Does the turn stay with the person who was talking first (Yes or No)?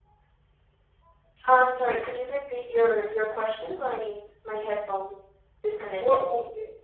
No